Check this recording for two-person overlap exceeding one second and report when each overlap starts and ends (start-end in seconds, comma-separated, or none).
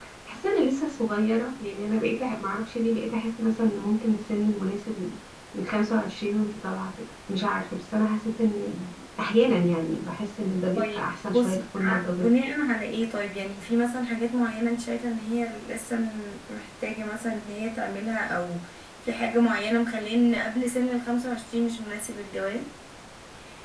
10.8-12.3